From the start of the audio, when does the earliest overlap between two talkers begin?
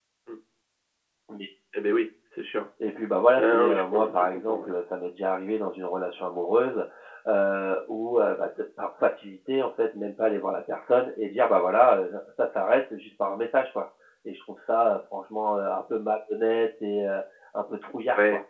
3.4 s

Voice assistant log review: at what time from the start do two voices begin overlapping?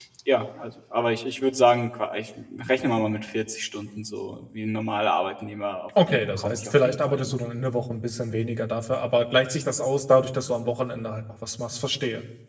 6.0 s

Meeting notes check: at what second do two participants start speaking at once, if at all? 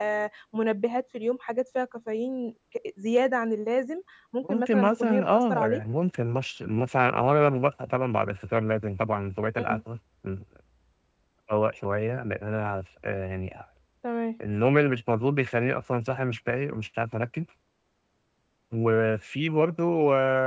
4.4 s

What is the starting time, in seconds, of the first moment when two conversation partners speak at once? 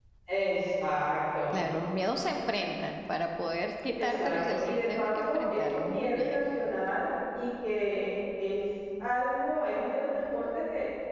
4.0 s

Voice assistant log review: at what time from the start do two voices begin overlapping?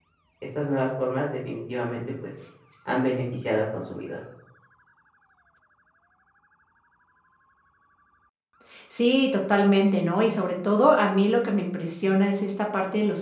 none

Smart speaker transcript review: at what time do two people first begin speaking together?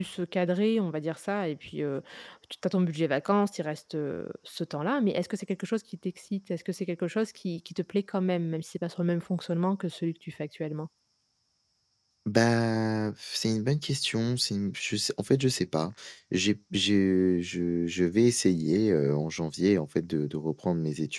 none

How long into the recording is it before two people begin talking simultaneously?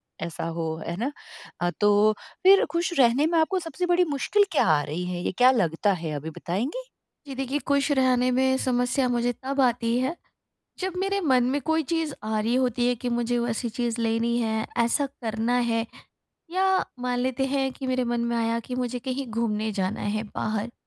none

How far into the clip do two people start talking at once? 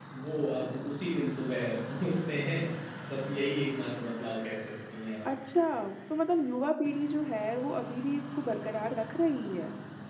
none

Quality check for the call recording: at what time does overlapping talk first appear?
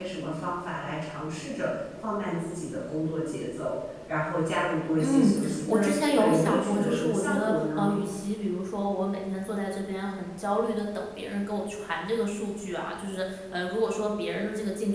5.0 s

